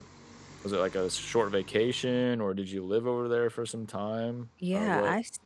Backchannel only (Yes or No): No